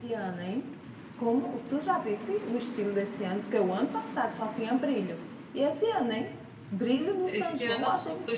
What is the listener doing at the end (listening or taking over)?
taking over